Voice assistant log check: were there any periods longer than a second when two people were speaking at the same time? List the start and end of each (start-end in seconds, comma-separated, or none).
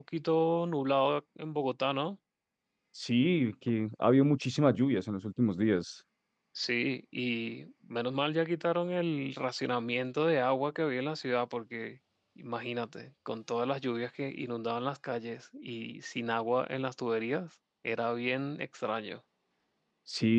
none